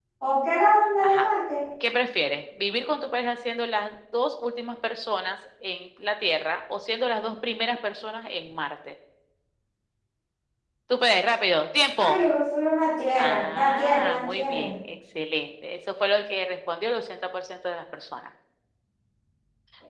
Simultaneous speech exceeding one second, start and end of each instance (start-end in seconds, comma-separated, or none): 13.2-14.7